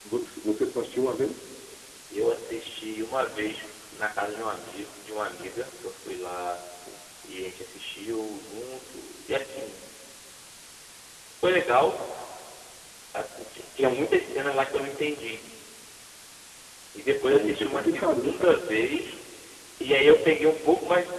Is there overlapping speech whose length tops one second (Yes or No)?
Yes